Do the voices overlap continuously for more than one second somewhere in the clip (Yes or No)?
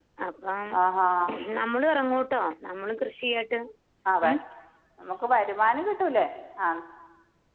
No